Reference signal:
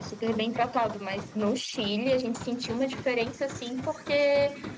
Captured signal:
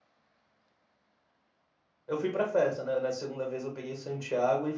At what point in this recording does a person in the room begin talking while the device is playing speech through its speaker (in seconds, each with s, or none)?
2.1 s